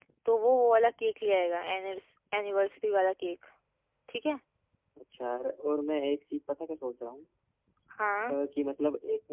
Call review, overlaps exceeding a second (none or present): none